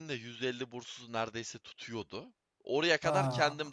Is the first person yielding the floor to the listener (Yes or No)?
No